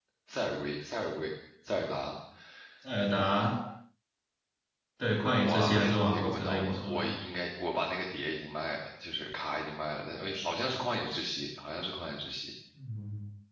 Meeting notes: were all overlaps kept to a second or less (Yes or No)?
No